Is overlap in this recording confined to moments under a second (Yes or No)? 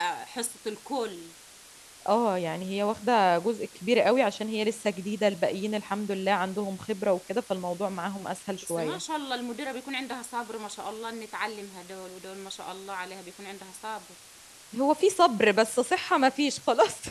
Yes